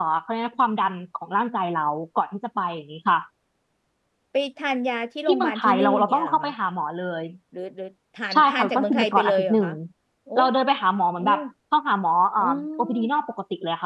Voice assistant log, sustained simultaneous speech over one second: present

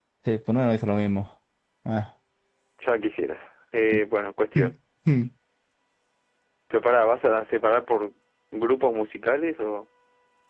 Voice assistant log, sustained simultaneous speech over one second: none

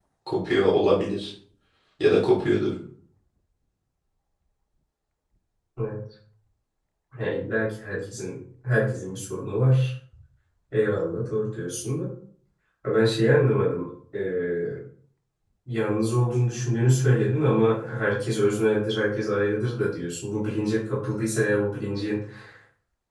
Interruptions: none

